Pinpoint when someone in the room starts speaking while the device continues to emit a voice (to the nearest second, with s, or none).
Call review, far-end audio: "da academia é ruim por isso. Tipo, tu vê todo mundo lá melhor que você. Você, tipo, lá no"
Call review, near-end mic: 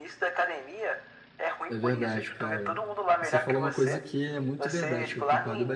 2 s